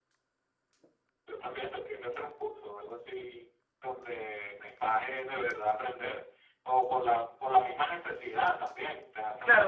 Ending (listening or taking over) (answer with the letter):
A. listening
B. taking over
B